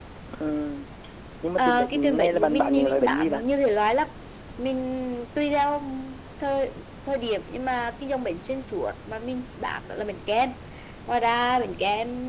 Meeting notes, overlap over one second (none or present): present